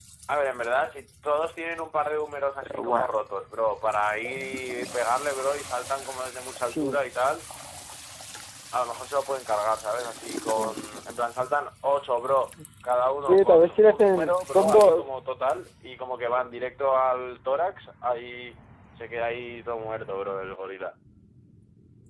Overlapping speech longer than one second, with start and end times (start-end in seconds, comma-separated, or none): 13.2-15.1